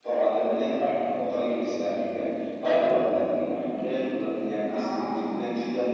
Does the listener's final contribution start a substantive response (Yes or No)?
No